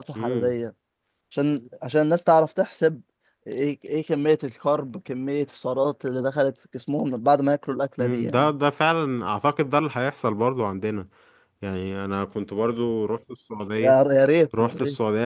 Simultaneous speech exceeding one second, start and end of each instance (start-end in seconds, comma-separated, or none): none